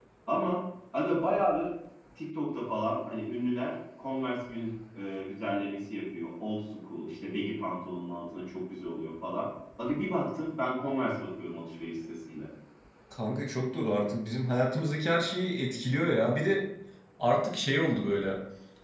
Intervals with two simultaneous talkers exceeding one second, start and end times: none

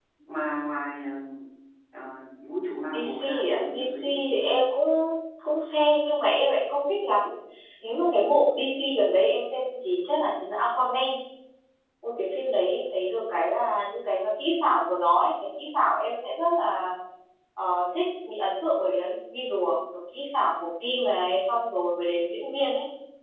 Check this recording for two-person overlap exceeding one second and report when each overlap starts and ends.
2.9-4.6

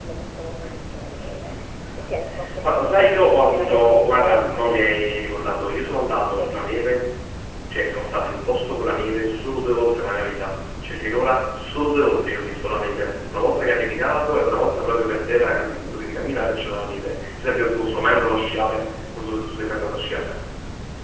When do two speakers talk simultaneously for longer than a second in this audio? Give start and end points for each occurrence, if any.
2.6-5.1

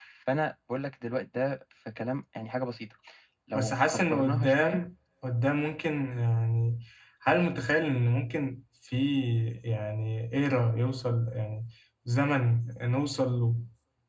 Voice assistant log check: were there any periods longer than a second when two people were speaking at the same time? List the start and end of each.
3.5-4.8

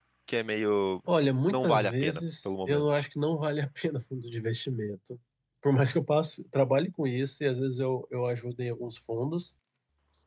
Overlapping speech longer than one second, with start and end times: 1.5-3.0

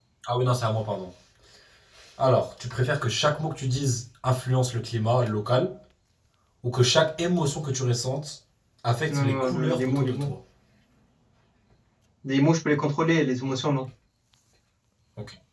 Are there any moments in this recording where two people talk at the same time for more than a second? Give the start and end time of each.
9.1-10.3

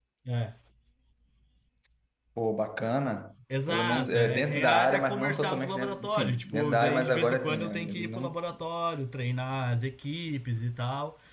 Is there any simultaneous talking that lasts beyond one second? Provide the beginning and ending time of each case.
3.7-8.4

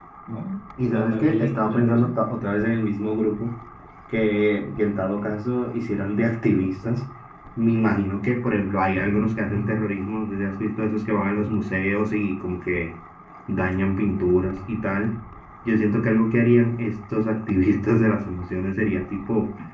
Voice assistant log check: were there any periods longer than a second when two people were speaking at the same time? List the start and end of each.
0.9-2.1

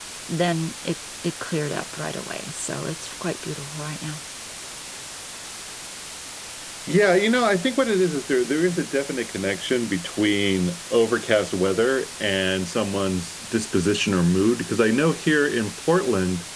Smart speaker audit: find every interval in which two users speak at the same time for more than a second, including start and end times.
none

